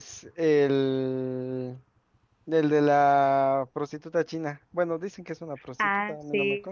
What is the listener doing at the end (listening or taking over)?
taking over